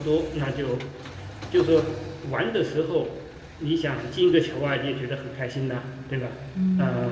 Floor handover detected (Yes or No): Yes